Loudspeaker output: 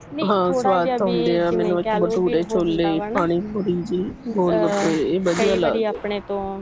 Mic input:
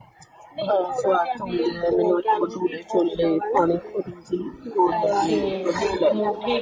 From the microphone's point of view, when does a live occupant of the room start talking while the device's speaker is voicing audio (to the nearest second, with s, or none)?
5 s